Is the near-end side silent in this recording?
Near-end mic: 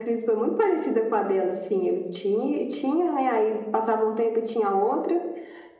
Yes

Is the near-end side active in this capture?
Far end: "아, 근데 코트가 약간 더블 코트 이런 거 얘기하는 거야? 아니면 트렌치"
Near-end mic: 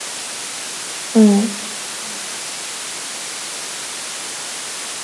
Yes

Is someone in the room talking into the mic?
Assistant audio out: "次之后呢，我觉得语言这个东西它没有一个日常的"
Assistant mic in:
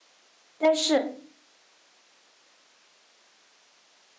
Yes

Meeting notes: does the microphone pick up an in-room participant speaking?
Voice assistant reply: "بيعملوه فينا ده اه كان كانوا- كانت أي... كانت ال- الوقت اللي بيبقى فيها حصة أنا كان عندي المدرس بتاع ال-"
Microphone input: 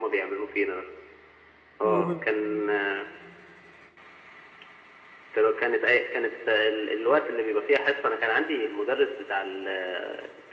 Yes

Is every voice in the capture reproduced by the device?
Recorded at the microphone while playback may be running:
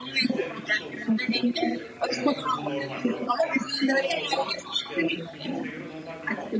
No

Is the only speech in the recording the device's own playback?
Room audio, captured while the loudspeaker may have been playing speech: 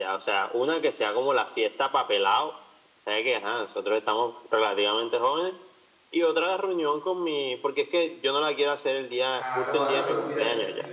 No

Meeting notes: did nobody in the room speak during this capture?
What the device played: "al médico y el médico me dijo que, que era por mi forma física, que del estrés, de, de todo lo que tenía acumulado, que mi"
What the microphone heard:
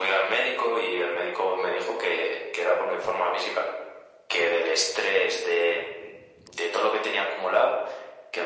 Yes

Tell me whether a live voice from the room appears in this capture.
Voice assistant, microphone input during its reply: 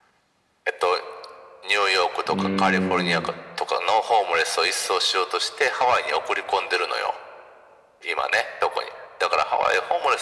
Yes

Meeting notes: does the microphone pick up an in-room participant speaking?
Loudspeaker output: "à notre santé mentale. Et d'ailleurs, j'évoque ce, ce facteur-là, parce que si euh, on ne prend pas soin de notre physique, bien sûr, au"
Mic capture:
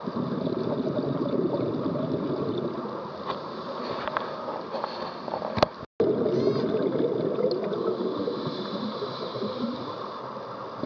No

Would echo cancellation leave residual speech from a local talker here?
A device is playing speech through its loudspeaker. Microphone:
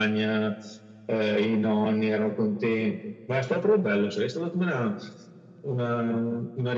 No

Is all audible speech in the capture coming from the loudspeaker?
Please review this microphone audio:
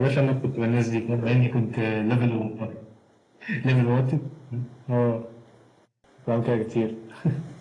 Yes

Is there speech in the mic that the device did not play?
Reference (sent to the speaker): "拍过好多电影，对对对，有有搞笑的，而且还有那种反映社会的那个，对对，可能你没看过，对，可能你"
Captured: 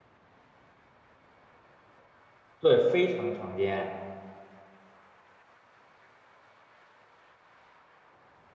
Yes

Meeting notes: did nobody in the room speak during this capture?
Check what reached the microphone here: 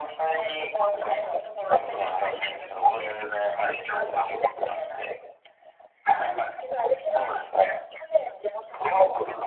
Yes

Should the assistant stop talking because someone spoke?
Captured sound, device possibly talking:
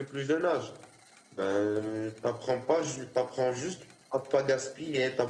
Yes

